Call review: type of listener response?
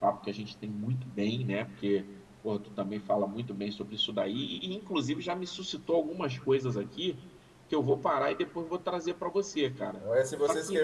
taking over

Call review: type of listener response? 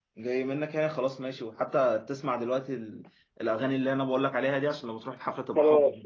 taking over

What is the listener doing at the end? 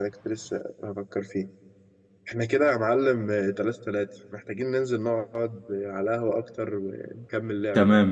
taking over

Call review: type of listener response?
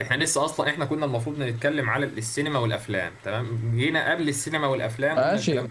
taking over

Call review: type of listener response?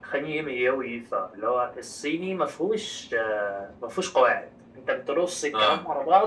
listening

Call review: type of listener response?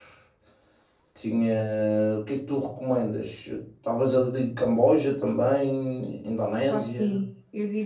taking over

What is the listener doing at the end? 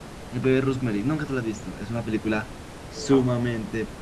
listening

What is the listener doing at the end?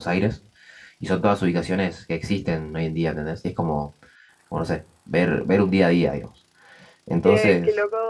taking over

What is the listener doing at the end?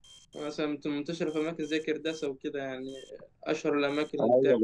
taking over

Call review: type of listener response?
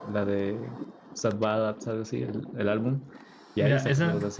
taking over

